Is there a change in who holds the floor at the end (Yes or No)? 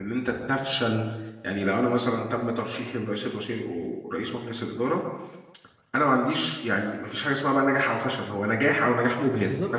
Yes